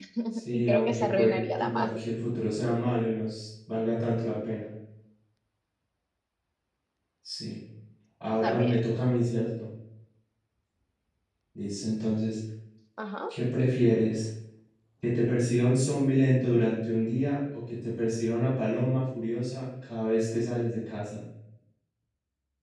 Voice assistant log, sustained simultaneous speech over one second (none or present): present